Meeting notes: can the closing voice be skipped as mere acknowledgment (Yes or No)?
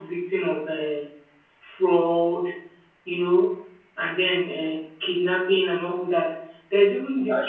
Yes